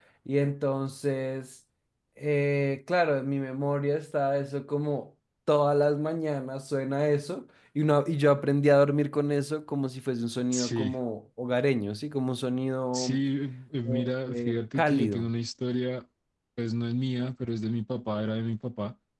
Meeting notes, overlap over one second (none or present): present